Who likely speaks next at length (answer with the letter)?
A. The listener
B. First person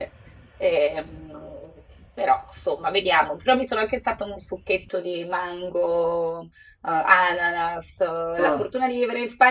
B